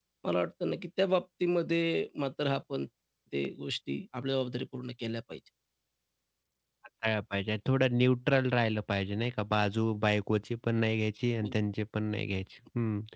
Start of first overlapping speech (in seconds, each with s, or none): none